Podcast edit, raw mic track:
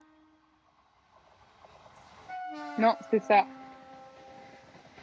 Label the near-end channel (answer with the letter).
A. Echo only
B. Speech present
B